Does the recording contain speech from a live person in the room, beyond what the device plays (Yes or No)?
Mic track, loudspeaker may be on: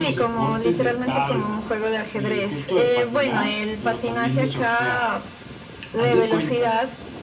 Yes